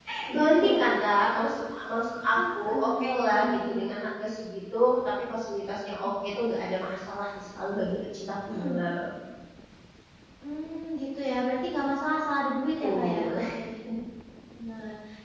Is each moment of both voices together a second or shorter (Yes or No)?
No